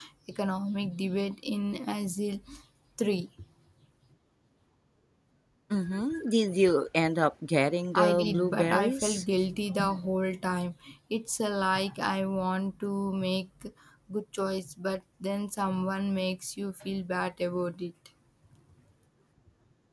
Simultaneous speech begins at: 7.9 s

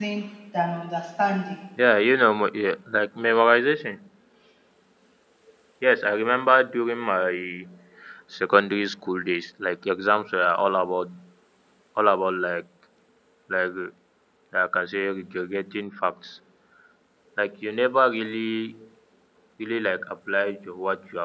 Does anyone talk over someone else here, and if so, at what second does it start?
none

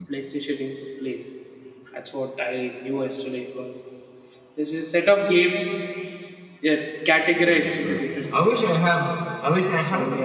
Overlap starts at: 7.5 s

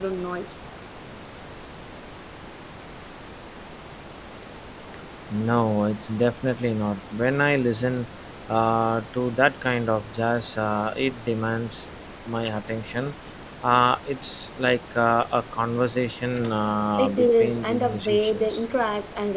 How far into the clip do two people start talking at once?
17.0 s

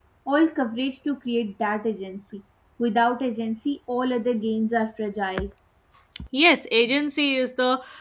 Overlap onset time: none

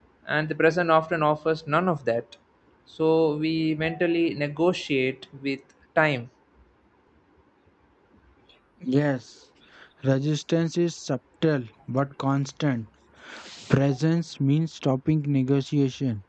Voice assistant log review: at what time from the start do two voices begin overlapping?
none

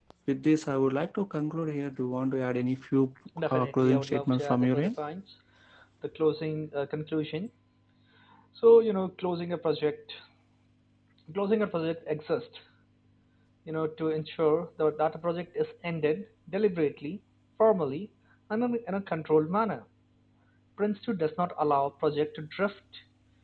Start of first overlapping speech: 3.4 s

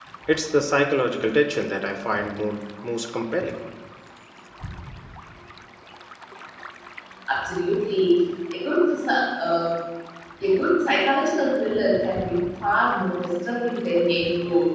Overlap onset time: none

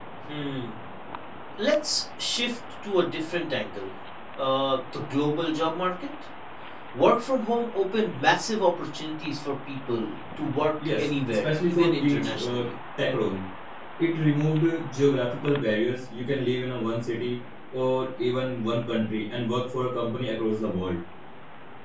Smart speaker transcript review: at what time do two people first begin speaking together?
10.8 s

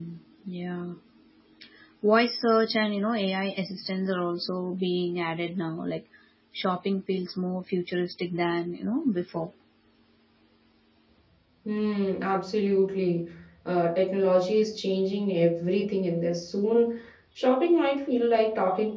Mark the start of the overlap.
none

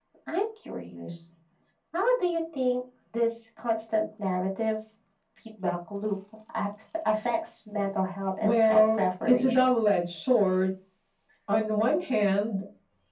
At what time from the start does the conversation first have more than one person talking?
8.4 s

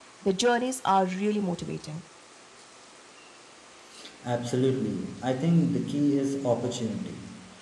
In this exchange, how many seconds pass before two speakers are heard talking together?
none

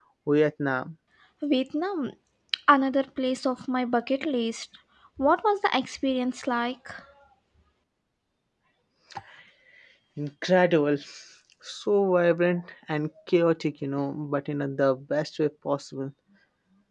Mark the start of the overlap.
none

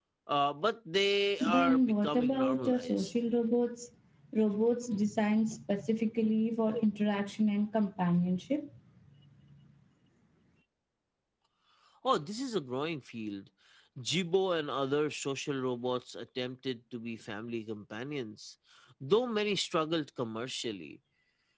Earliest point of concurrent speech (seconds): 1.4 s

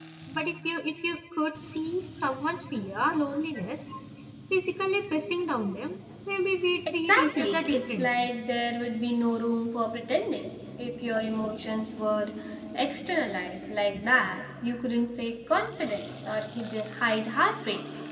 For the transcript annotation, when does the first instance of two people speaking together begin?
6.9 s

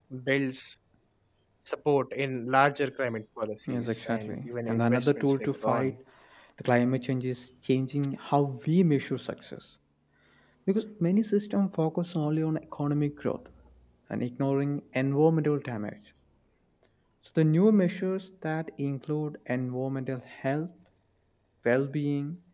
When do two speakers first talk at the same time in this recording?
3.7 s

